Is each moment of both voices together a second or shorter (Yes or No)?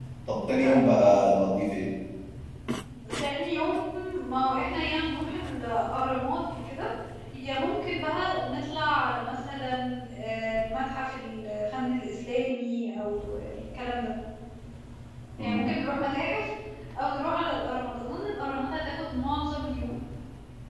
Yes